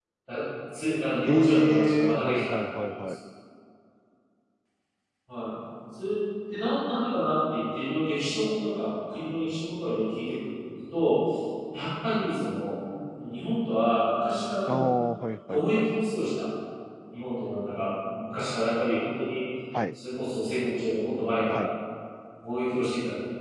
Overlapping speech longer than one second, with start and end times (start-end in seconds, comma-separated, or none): 1.3-3.0